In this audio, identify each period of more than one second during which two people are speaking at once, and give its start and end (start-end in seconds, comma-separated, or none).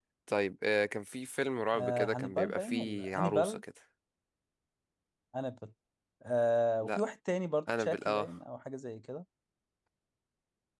1.7-3.6